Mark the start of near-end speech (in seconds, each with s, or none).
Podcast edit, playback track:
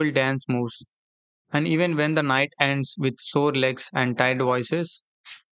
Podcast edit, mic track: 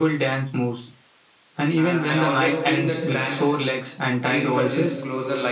1.8 s